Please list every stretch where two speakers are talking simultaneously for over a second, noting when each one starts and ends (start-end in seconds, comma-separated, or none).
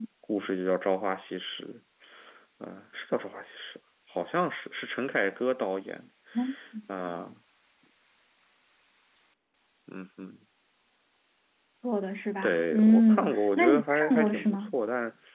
12.4-14.7